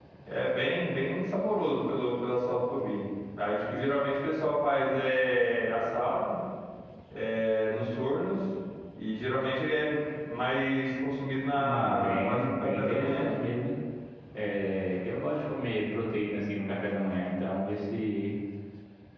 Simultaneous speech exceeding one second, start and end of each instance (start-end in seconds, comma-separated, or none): 11.6-13.4